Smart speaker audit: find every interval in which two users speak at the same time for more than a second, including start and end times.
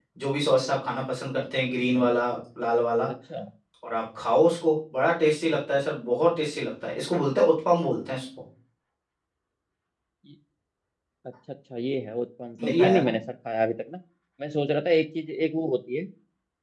none

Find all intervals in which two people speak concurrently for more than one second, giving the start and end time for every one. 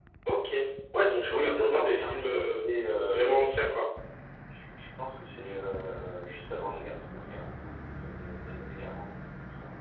1.3-2.6

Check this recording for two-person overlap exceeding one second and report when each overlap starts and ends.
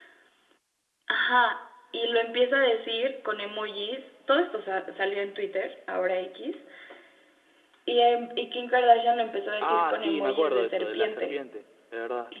9.6-11.4

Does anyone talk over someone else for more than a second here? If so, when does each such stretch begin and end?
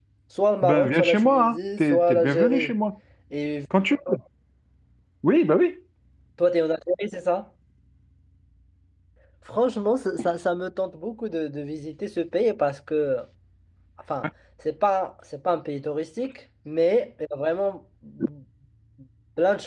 0.6-2.7

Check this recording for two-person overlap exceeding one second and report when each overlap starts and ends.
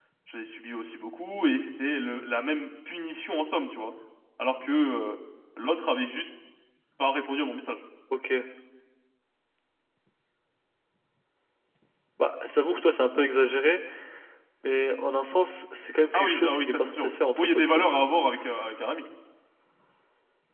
16.1-17.9

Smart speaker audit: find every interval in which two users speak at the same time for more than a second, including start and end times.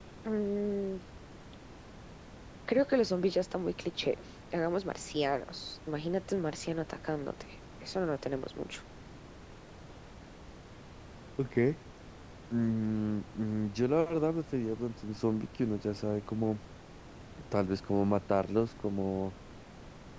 none

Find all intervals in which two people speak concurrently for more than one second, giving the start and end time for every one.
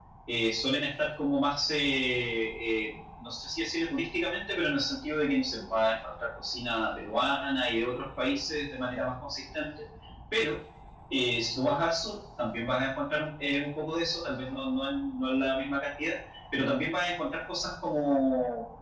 none

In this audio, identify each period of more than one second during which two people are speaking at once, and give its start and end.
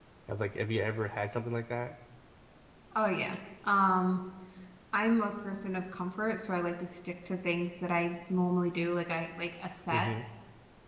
none

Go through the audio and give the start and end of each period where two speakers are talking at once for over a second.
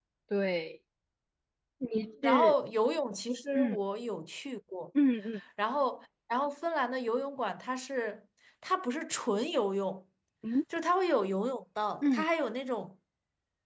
none

